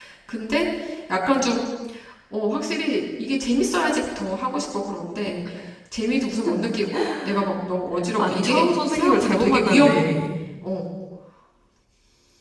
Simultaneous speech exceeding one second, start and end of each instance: 8.2-10.1

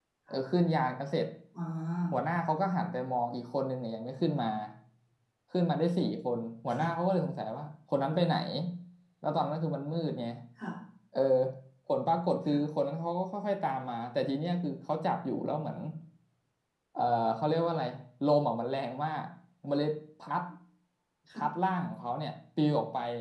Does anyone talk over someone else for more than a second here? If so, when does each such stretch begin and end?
none

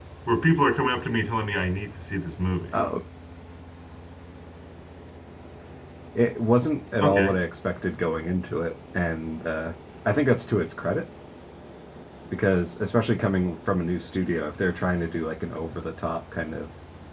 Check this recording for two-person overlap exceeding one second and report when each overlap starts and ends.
none

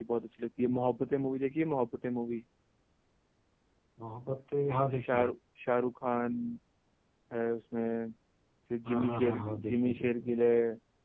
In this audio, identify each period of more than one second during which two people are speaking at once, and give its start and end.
8.8-10.2

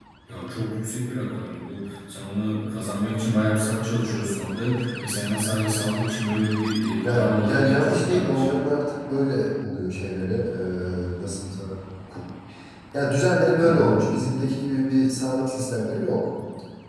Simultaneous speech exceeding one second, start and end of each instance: 7.0-8.5

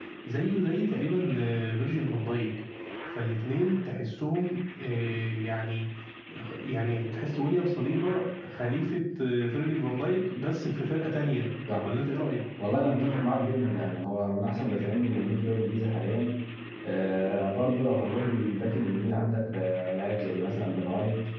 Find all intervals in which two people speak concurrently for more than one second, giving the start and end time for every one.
none

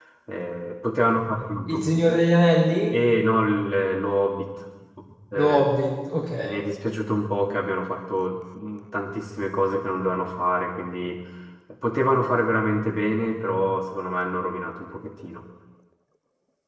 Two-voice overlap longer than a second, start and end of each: none

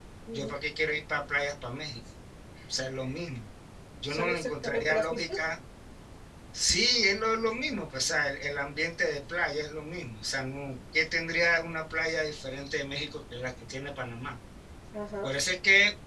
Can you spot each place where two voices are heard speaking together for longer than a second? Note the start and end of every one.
4.1-5.4

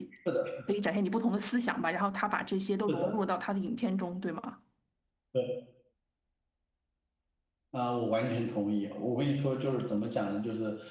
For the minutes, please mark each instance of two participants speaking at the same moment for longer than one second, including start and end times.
none

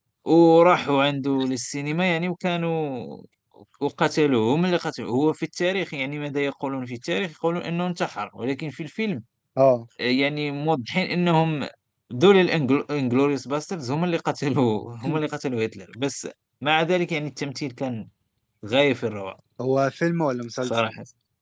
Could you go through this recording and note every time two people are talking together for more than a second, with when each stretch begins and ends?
none

